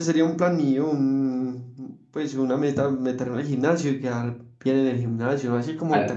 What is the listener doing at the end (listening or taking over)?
listening